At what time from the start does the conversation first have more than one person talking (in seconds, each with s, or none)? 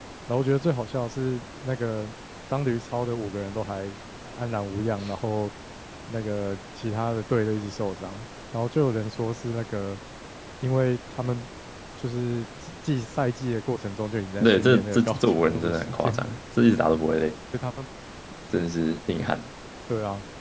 14.4 s